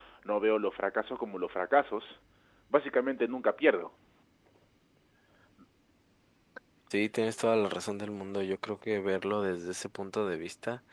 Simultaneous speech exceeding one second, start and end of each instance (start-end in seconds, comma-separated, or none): none